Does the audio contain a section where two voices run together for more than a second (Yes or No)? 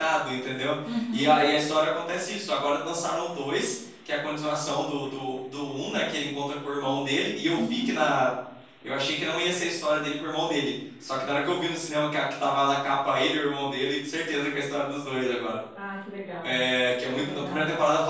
No